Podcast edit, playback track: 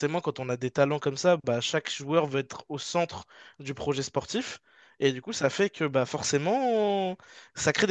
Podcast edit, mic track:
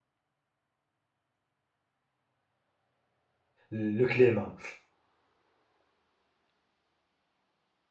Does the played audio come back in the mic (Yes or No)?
No